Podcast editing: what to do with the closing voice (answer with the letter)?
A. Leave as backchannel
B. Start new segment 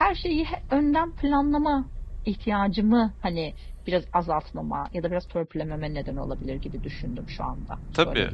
B